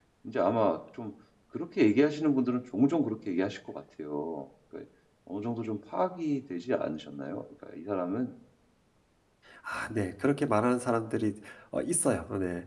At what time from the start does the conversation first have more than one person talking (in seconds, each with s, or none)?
none